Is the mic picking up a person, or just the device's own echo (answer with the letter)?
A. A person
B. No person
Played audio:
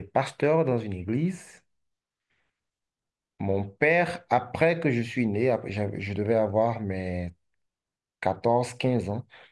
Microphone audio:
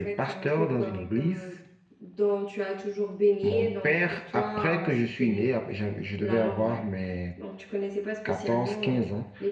A